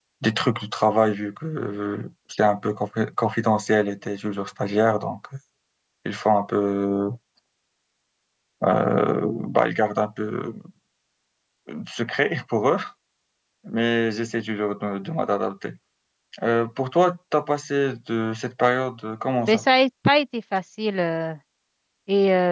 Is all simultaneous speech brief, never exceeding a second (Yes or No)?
Yes